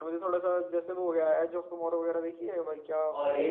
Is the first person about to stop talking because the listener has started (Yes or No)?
Yes